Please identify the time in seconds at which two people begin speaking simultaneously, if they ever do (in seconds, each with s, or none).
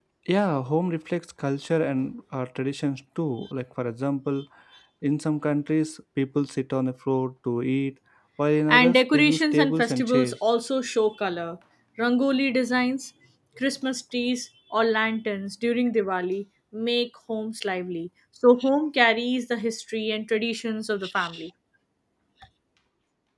8.7 s